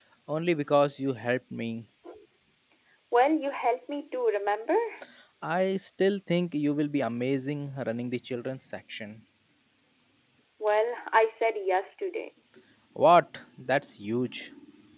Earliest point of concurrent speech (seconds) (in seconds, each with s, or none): none